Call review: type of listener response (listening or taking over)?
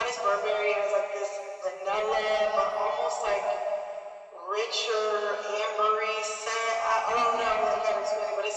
listening